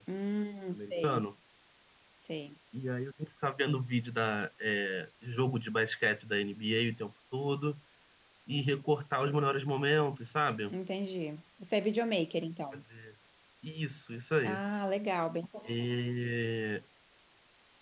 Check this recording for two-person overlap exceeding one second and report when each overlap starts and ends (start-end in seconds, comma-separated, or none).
none